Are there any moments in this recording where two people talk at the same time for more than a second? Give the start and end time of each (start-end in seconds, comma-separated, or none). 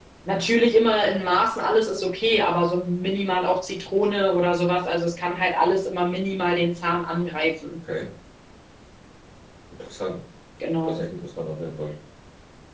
none